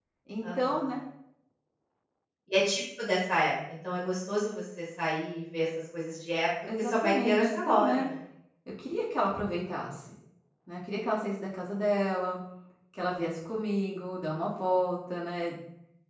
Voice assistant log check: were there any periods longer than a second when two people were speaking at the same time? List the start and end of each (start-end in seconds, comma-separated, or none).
6.8-8.1